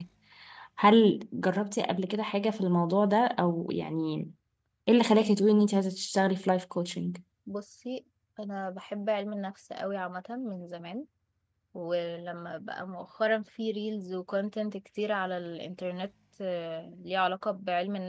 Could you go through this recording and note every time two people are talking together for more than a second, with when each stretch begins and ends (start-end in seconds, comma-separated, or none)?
none